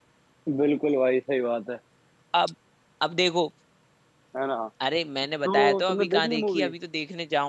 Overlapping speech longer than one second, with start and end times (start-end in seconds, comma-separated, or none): 5.5-6.7